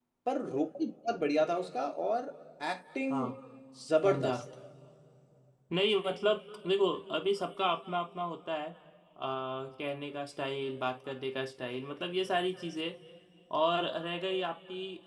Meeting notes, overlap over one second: none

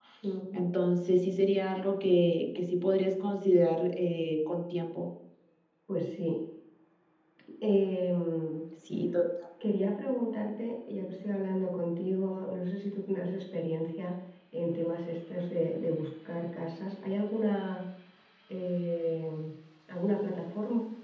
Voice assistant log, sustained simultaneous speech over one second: none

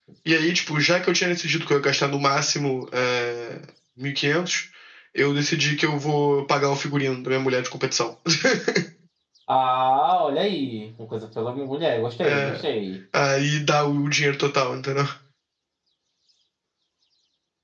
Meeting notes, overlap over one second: none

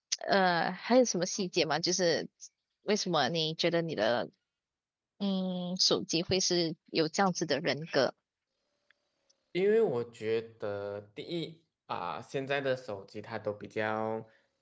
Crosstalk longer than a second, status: none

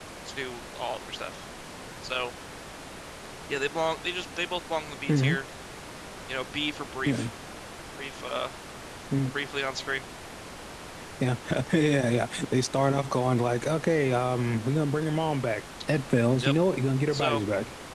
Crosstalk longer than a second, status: none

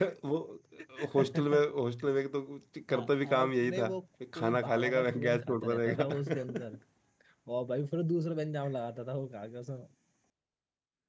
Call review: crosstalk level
present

